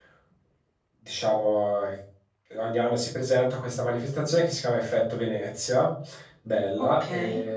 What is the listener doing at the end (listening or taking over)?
listening